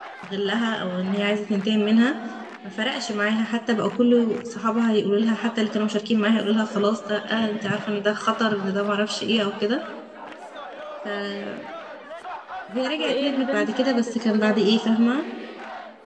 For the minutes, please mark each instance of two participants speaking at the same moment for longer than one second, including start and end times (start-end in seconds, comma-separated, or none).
12.8-14.8